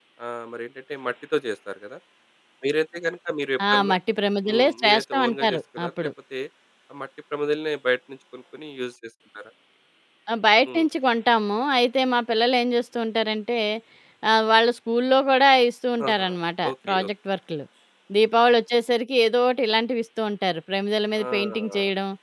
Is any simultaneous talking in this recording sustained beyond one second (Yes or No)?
Yes